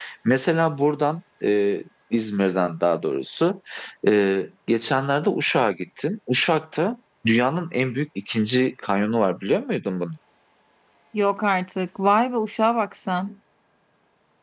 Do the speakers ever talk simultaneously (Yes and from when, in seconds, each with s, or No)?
No